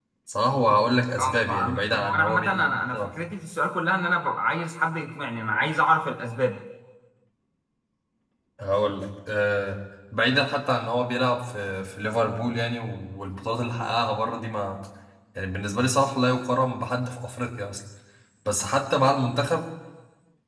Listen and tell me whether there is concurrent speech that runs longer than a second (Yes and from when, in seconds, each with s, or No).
Yes, from 1.2 s